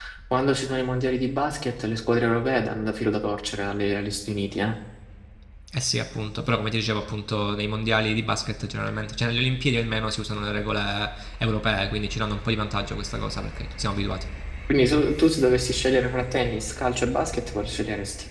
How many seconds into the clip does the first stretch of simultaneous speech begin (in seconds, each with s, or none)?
none